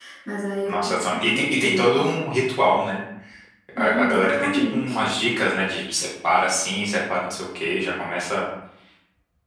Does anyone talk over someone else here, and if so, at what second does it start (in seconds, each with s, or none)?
0.7 s